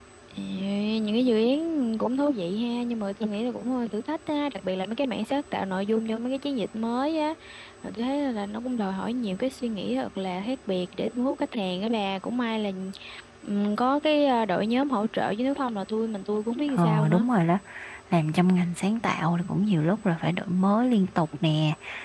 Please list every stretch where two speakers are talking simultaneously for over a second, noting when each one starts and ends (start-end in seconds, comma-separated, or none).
none